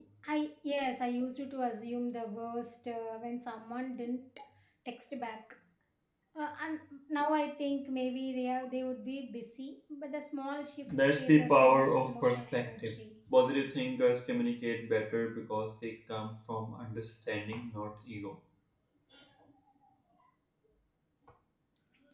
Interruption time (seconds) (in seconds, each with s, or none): 11.2 s